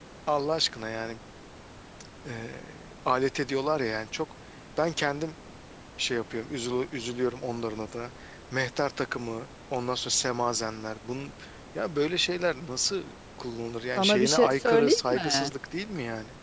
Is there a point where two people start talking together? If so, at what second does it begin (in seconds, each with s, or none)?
13.9 s